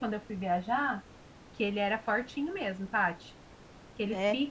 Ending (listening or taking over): listening